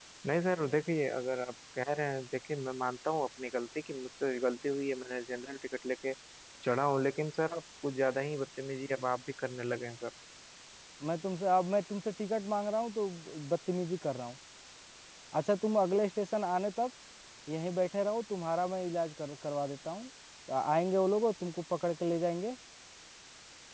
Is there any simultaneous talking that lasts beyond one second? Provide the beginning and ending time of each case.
none

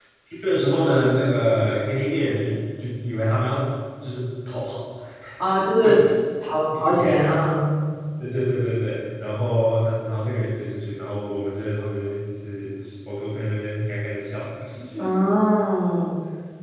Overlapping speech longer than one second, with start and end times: none

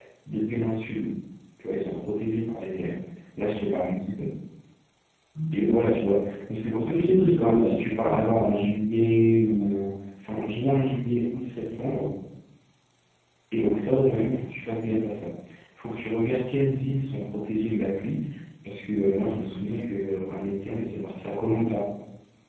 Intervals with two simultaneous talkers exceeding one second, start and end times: 6.9-8.4

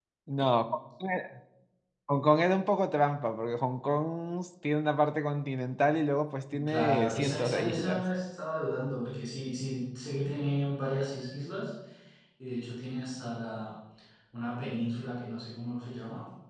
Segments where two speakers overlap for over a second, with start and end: 6.7-8.1

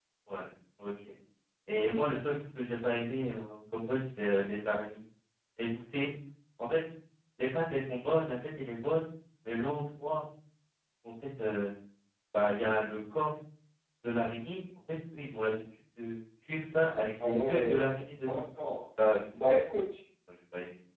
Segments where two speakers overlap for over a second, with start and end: 17.2-18.4

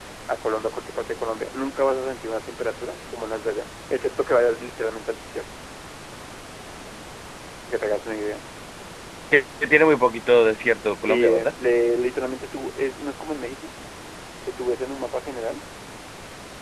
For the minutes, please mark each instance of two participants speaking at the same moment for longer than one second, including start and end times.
none

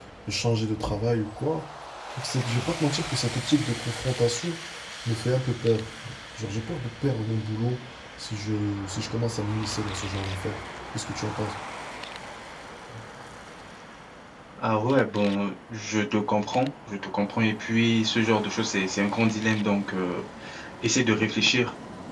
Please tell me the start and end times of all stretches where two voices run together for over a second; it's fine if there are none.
none

